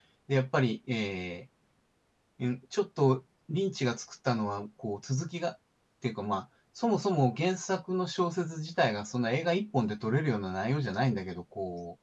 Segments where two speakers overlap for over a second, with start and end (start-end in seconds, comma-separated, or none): none